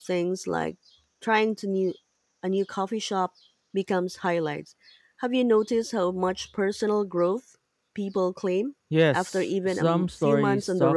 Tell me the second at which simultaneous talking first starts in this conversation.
8.9 s

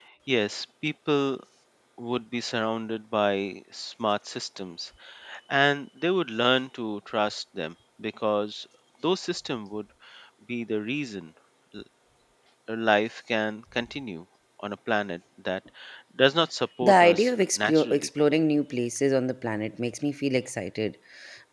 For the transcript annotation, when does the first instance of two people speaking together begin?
16.8 s

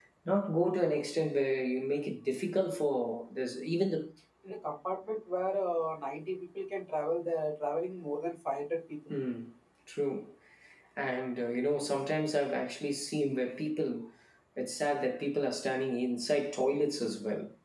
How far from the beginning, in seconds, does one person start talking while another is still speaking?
none

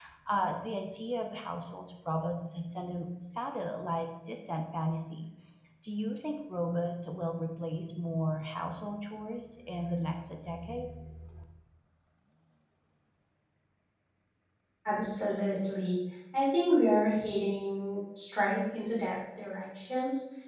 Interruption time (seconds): none

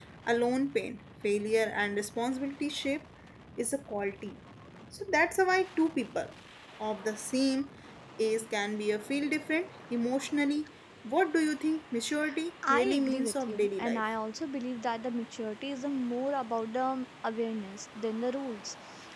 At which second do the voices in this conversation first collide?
12.7 s

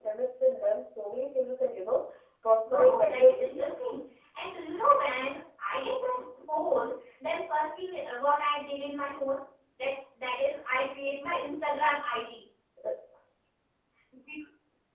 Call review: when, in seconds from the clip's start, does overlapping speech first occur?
2.7 s

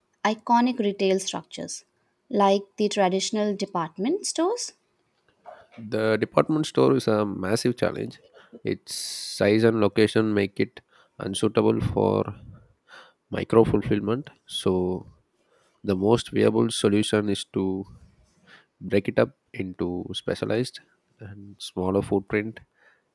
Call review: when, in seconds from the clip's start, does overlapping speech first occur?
none

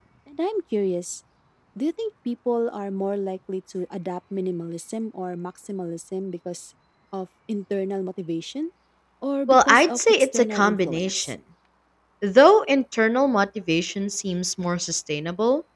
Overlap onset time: 9.5 s

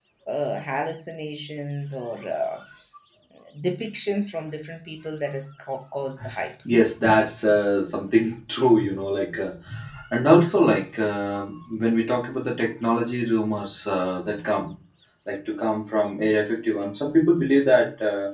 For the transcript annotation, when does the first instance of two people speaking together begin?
none

